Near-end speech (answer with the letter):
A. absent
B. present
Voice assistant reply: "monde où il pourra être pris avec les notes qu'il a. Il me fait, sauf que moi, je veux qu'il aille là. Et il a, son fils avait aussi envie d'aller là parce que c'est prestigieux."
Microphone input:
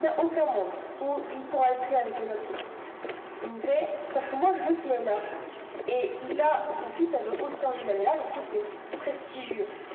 A